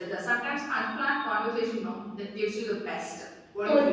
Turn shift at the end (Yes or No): Yes